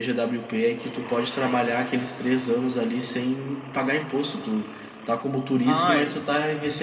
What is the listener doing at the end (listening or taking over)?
listening